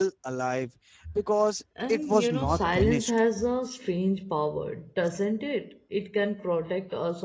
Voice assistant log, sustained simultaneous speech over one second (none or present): present